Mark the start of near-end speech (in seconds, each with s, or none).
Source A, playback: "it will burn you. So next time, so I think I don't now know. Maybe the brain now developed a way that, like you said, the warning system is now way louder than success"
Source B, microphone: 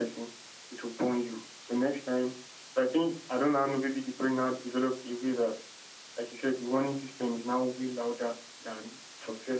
none